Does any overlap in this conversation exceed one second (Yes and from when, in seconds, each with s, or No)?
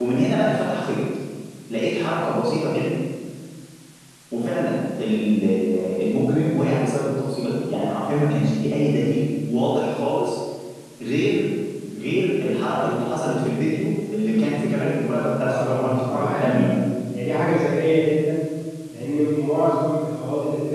Yes, from 15.3 s